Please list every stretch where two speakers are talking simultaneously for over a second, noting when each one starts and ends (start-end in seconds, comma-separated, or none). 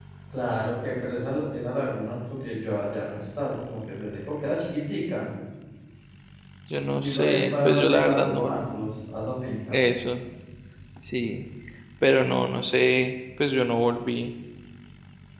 7.0-8.7